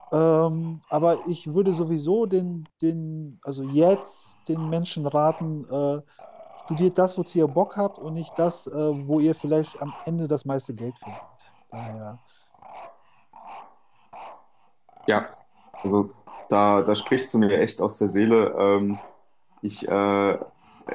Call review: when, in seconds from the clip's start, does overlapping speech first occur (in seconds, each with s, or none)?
none